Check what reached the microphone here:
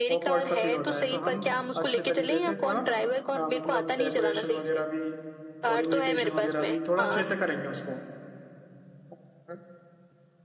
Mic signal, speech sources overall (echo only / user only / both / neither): both